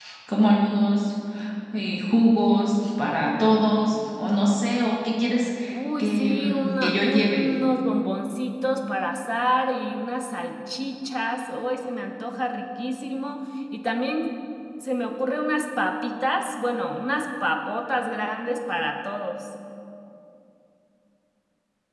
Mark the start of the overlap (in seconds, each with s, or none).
6.0 s